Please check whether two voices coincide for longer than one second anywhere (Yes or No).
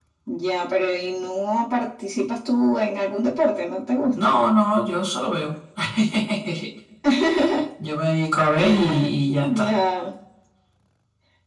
No